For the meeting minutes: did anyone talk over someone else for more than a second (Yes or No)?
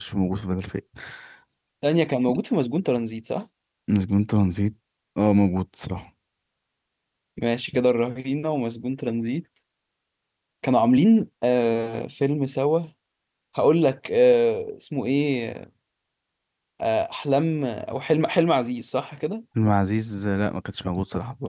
No